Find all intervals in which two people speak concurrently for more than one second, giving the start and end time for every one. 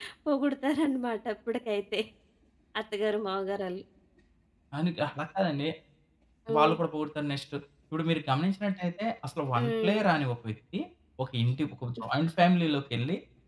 none

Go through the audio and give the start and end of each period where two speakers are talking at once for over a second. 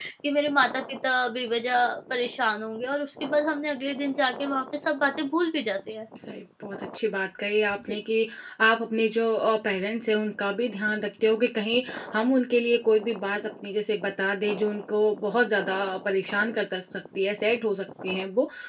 none

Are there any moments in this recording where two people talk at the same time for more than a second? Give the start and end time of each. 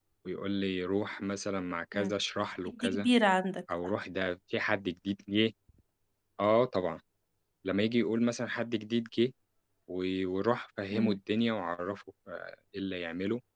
none

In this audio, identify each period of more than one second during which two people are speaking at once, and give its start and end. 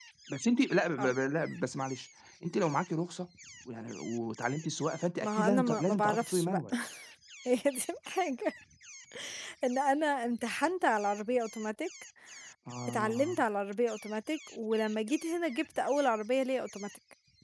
5.2-6.6

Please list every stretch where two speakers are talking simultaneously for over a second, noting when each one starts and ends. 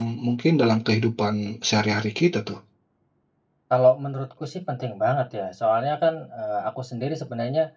none

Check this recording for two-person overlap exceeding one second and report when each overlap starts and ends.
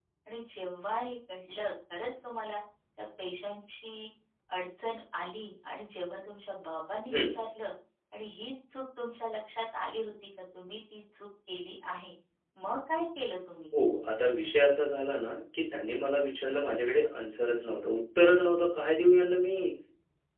none

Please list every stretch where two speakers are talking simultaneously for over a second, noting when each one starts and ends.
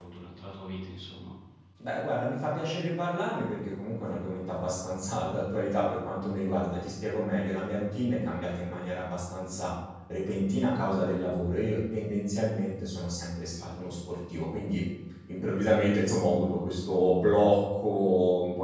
none

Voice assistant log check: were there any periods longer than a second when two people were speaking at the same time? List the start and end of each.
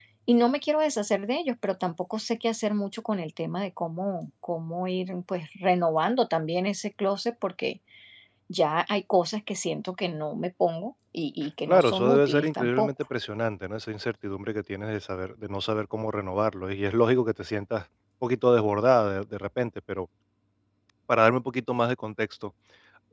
11.7-12.9

